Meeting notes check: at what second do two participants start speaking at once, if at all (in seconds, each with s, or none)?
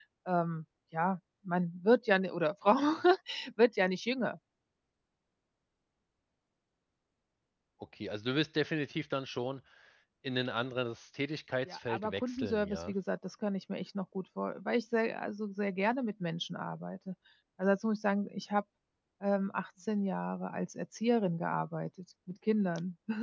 11.7 s